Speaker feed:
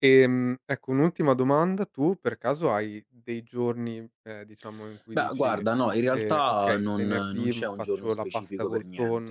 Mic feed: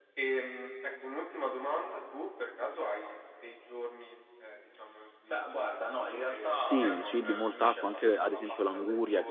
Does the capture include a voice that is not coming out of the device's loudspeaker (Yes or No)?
Yes